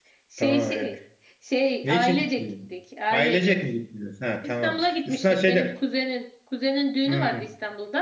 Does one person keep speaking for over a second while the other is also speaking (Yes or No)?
Yes